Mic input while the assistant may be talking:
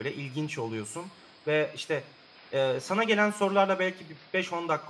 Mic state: user only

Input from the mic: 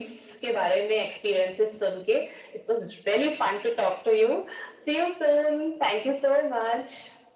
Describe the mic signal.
echo only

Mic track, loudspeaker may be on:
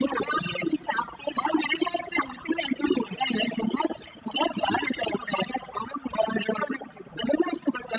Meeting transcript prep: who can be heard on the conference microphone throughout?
echo only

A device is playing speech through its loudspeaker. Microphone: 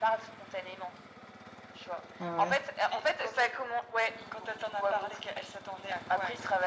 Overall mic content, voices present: both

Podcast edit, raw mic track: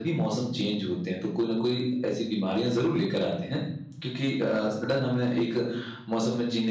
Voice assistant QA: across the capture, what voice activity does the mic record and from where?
echo only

